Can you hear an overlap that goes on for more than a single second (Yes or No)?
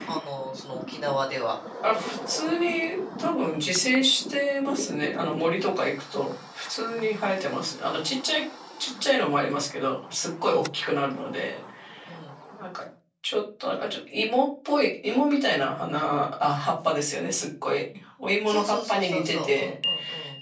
Yes